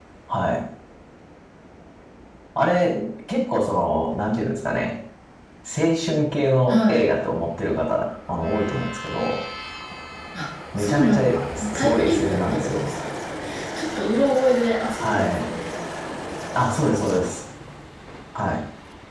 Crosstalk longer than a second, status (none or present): present